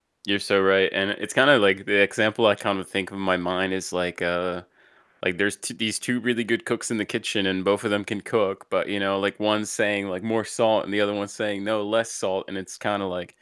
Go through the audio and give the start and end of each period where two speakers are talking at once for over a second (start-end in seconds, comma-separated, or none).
none